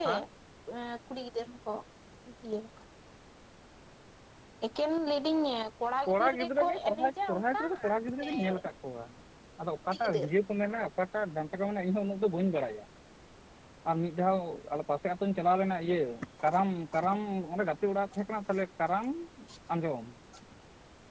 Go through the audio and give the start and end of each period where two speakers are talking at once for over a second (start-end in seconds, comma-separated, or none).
6.1-7.6